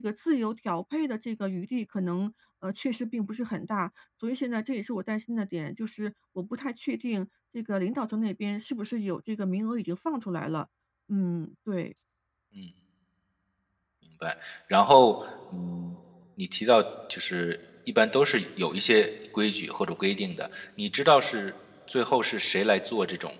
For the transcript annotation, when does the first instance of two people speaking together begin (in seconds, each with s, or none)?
none